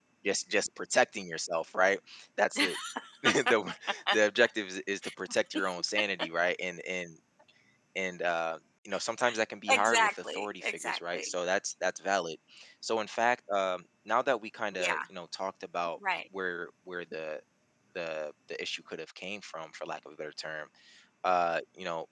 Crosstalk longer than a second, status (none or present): present